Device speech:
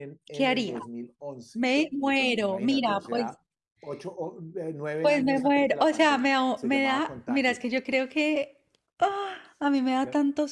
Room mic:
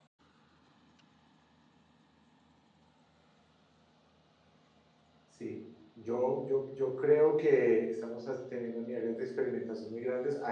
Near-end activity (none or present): present